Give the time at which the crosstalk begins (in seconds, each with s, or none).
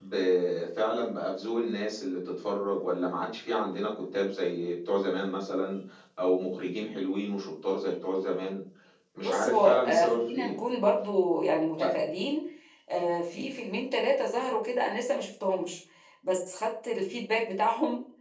9.2 s